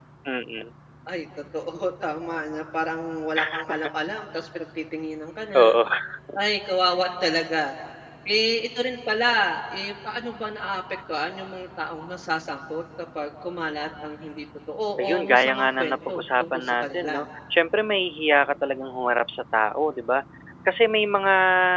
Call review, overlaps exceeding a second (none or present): present